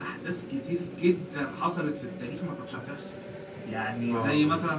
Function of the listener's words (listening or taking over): listening